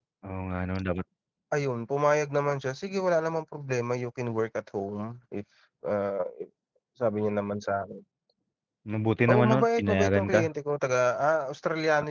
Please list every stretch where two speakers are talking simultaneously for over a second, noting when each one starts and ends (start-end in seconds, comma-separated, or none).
9.3-10.5